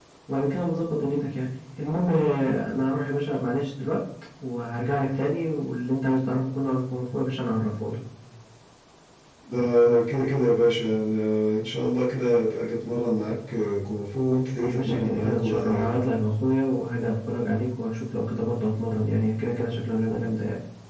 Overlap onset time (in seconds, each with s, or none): 14.6 s